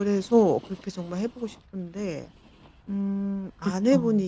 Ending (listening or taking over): listening